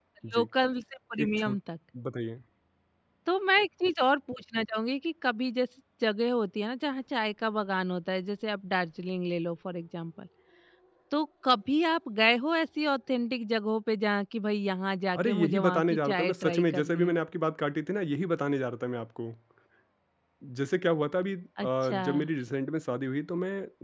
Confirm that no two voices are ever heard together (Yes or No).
No